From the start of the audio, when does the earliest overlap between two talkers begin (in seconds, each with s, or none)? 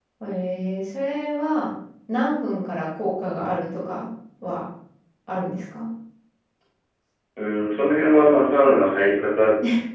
none